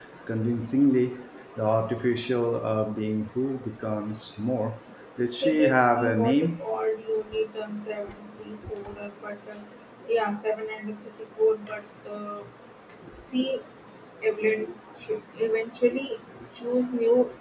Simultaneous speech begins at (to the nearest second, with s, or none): 5 s